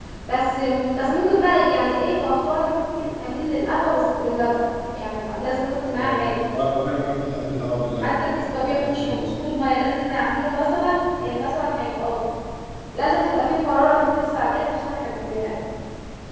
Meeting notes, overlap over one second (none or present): present